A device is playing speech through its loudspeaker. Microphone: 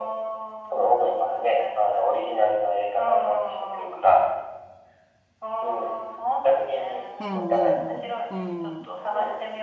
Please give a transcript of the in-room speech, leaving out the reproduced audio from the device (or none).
うん、うん、うん、う